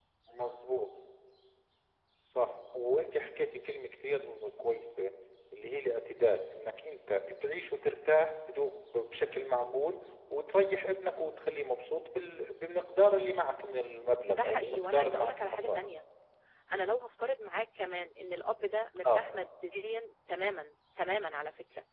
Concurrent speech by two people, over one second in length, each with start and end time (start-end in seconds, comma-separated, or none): 14.3-15.9